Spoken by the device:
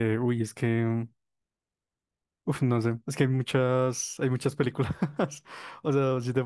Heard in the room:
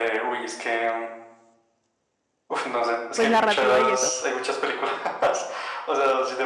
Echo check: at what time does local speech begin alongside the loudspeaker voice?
3.1 s

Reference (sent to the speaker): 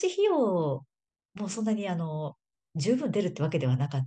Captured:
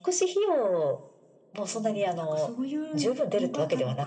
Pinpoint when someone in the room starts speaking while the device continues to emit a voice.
1.7 s

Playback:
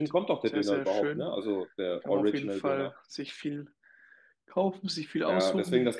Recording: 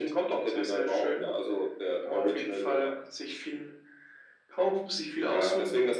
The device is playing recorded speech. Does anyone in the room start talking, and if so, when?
none

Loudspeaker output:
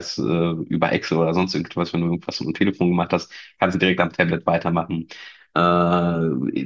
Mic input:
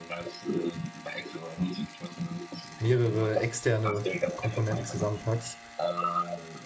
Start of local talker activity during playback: 2.8 s

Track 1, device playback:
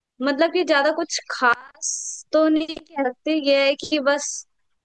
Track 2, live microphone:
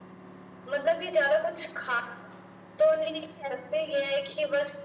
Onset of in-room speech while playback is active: none

